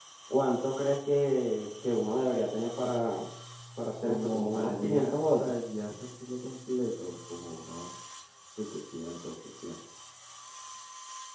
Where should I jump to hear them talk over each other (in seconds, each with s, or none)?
4.0 s